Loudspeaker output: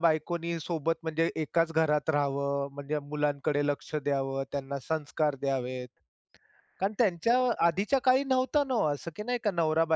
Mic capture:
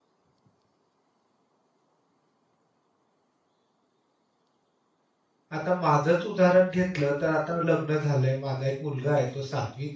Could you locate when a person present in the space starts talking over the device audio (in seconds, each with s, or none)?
5.5 s